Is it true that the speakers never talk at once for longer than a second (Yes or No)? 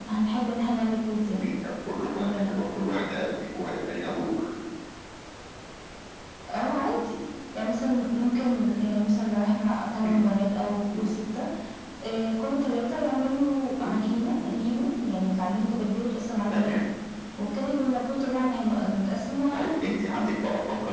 Yes